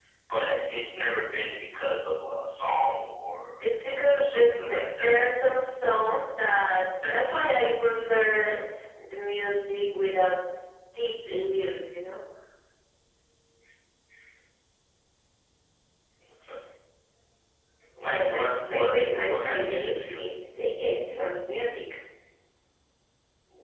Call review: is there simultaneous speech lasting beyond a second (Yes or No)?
Yes